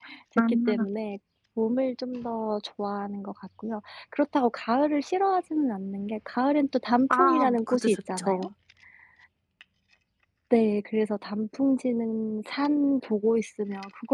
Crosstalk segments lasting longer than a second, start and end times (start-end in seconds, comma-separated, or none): 7.1-8.5